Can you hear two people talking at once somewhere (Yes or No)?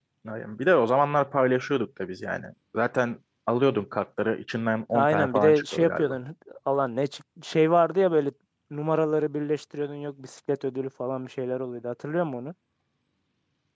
Yes